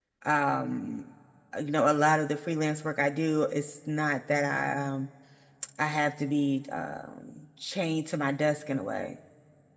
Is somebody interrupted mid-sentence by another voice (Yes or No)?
No